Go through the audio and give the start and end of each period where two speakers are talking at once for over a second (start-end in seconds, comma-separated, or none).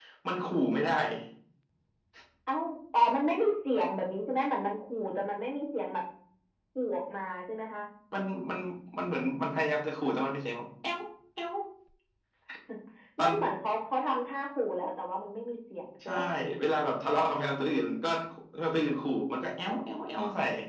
none